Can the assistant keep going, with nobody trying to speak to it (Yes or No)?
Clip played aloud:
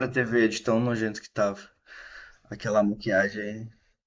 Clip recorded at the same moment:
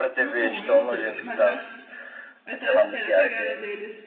No